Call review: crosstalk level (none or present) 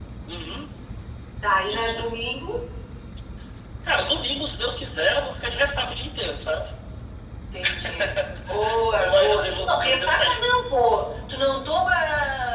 present